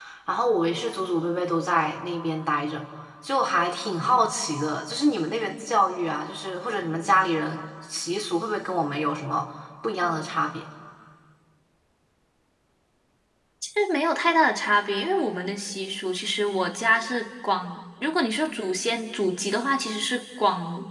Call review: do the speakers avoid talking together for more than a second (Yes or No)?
Yes